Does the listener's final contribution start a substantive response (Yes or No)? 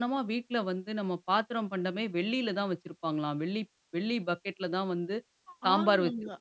Yes